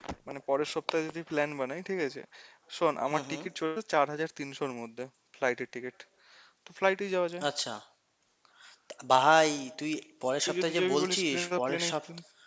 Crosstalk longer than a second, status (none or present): present